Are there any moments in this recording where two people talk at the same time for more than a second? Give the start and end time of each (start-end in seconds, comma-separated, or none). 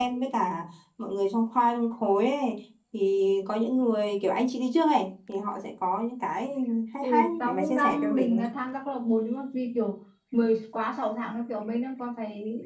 7.0-8.4